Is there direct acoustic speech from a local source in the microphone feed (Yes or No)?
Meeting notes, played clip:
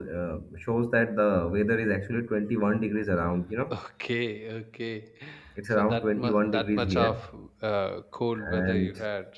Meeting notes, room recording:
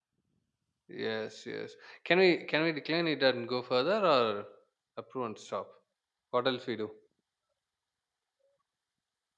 Yes